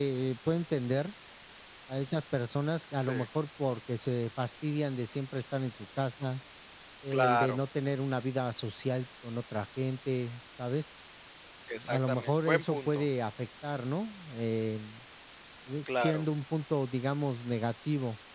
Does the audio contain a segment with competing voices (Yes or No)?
Yes